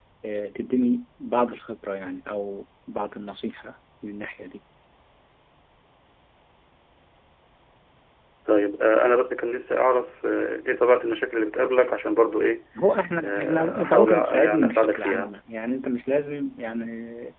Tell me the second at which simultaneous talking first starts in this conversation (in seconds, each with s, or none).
13.2 s